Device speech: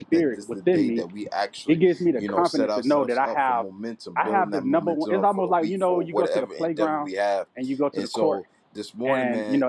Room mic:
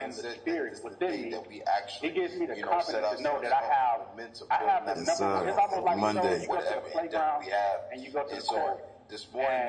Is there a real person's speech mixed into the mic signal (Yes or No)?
Yes